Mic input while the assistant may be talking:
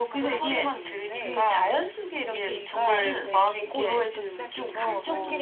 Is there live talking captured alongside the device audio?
Yes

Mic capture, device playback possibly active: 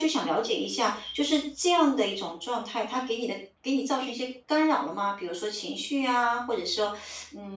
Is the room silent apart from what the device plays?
Yes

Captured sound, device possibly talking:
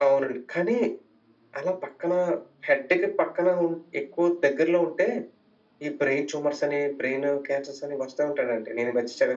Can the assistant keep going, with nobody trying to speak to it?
Yes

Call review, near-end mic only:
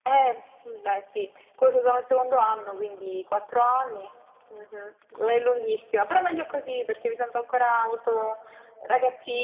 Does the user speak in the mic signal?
No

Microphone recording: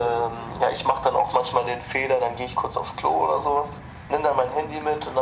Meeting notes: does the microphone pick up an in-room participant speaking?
No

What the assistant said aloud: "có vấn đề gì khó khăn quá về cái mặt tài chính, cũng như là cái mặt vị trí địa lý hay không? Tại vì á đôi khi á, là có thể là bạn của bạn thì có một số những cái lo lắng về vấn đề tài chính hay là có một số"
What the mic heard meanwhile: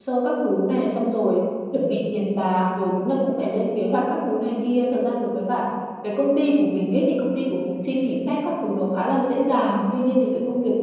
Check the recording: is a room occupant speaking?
Yes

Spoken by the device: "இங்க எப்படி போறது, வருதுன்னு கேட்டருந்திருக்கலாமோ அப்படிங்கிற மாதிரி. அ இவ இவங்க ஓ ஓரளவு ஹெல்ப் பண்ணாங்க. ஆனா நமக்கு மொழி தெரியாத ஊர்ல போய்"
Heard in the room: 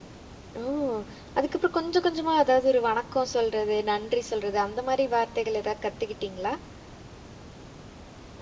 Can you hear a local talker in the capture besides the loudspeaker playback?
Yes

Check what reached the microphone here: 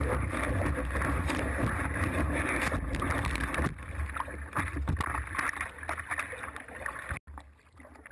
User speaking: No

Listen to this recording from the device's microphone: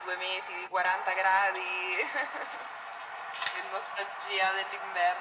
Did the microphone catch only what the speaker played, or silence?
Yes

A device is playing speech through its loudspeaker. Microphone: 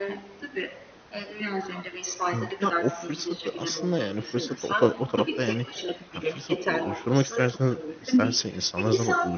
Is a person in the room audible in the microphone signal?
Yes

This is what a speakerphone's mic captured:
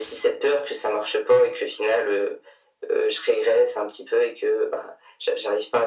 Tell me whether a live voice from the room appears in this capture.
No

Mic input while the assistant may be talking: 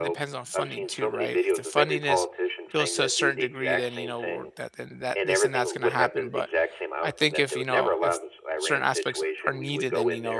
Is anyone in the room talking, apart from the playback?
Yes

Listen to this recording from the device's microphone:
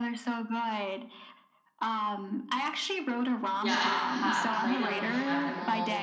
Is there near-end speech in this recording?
Yes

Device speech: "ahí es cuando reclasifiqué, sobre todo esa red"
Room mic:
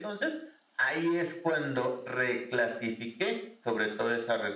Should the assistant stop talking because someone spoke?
No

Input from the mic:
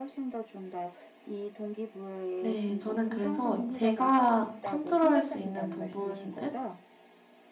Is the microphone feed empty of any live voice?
No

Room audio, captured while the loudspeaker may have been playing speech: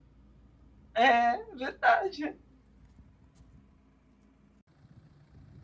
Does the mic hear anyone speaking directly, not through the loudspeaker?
Yes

